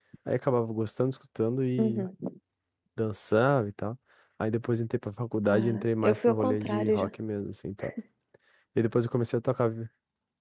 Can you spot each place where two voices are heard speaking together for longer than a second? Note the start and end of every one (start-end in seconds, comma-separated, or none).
5.5-7.1